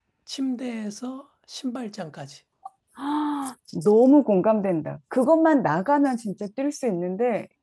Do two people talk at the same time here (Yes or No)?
No